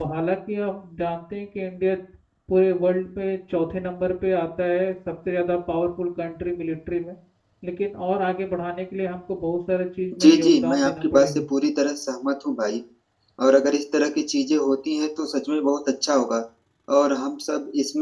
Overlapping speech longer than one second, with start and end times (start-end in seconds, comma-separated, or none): 10.2-11.4